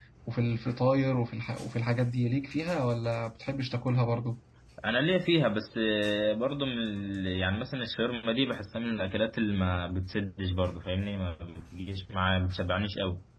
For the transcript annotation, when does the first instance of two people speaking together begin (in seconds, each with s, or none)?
none